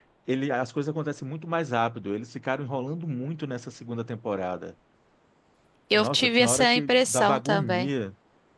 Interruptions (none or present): present